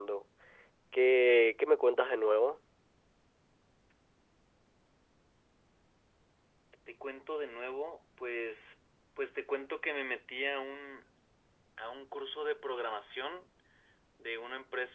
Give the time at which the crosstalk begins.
none

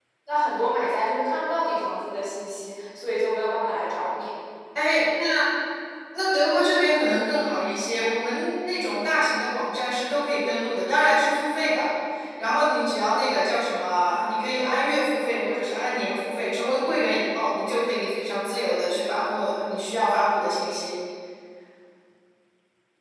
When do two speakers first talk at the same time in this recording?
none

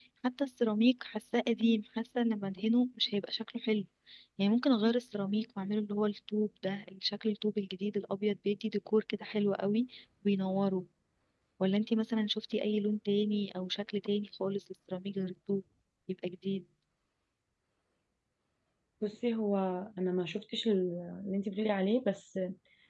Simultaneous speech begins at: none

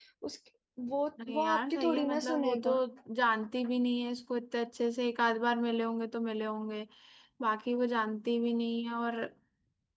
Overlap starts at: 1.3 s

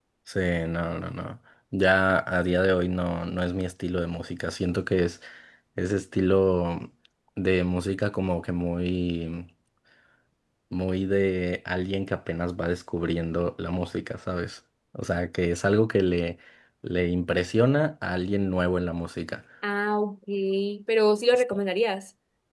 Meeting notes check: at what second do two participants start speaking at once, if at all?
none

